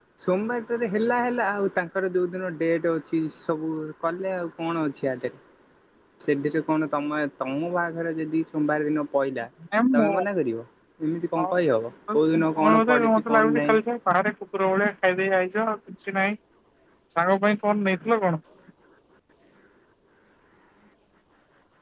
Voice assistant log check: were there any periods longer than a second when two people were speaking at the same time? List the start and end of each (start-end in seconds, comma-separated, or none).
12.1-13.8